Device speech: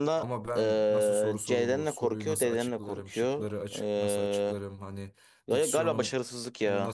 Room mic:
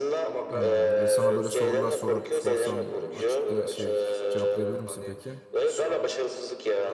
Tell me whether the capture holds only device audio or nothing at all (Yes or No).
No